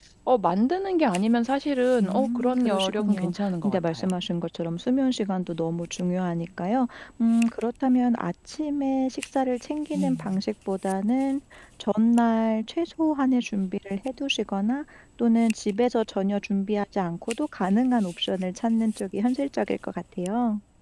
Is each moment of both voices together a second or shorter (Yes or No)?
No